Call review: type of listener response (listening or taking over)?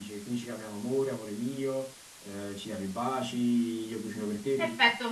taking over